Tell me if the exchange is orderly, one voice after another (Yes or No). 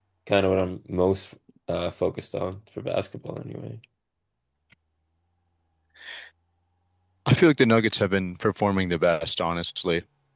Yes